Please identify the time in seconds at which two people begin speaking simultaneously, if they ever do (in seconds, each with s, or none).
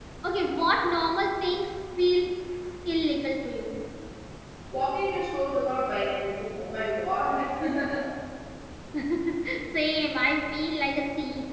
none